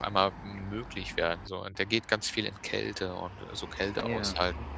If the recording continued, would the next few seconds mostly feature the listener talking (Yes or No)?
No